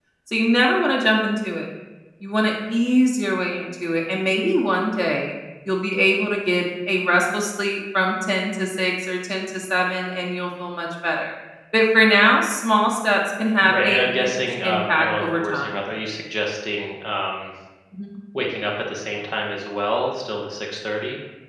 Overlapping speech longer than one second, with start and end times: 13.6-15.7

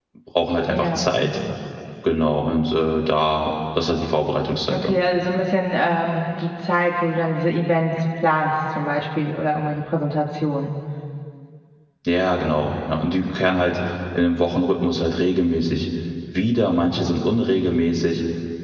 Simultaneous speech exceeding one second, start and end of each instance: none

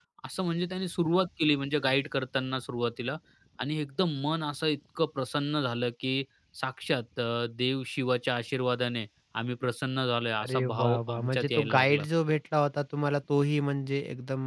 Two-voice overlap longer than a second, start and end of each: 10.4-12.0

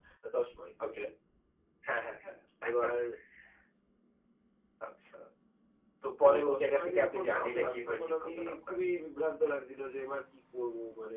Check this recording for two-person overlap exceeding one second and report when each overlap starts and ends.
6.2-8.8

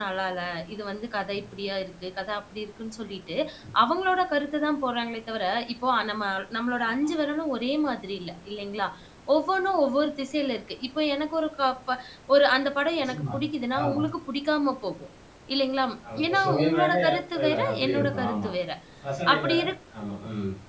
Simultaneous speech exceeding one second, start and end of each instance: 16.3-18.5

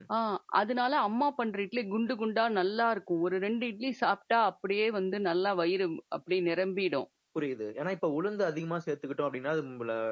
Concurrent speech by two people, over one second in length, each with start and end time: none

